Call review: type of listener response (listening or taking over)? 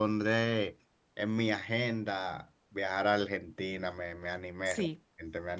taking over